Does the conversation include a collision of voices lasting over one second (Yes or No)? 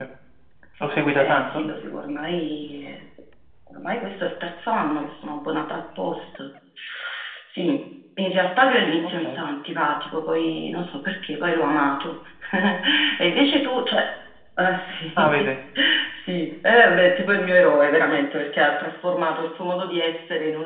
No